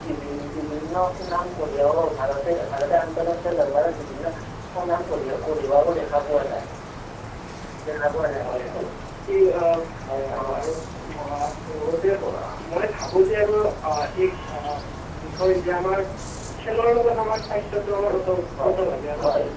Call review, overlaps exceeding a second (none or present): none